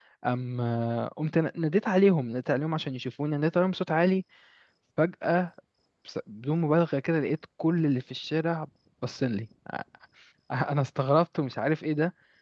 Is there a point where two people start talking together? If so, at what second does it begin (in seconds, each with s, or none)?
none